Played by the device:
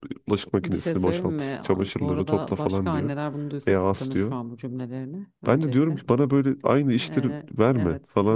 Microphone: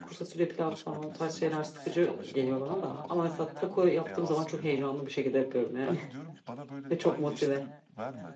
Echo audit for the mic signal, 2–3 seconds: both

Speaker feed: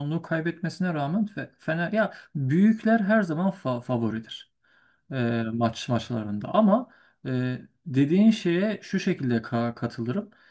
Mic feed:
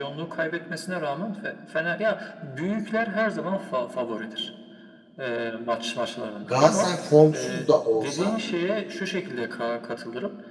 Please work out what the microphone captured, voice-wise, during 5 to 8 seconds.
both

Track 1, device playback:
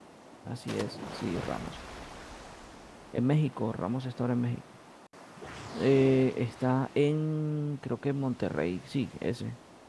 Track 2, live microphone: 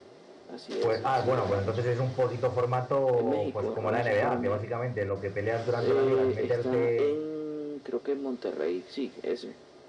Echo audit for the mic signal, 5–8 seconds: both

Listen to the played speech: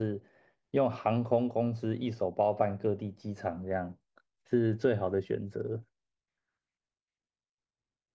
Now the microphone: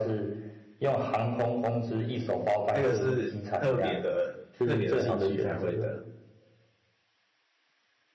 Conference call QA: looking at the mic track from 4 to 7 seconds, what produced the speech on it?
both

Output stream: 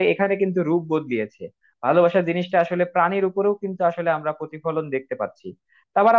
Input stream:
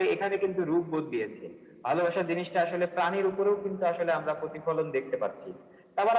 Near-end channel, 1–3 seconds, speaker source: echo only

